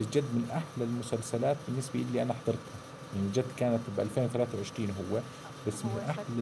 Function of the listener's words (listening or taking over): taking over